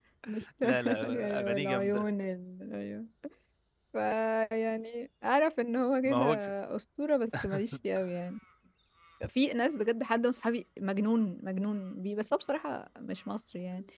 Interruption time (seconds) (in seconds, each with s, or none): 0.6 s